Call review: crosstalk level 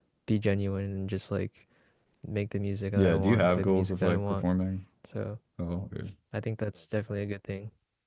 present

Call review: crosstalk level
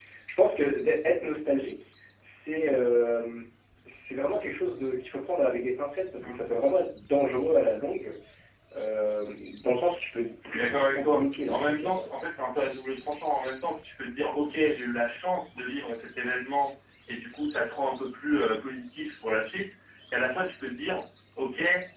present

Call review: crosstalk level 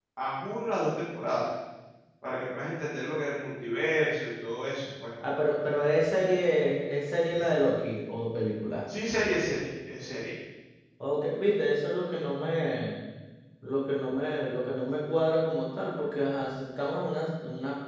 none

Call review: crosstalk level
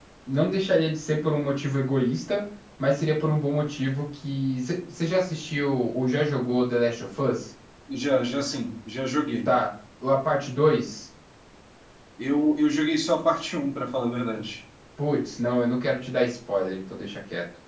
none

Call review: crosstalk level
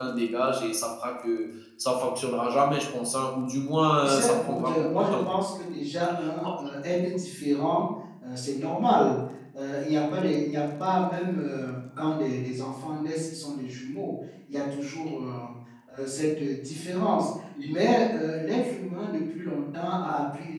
present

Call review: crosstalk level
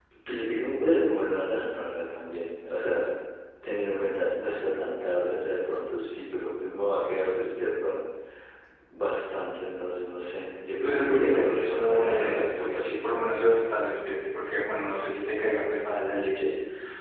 present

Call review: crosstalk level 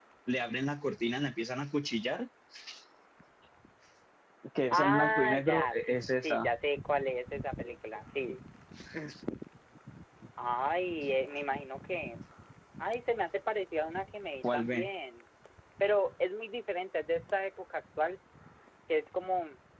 present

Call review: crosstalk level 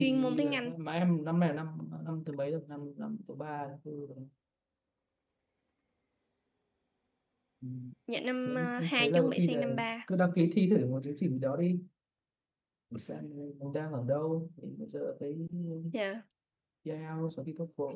present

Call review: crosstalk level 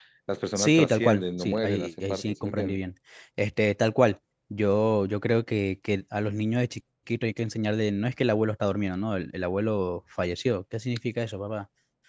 present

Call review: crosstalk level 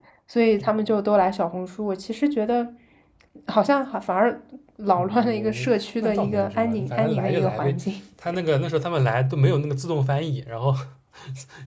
present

